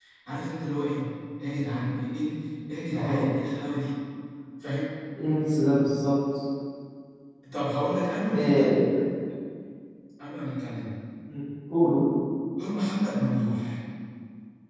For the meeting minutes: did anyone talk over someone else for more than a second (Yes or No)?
No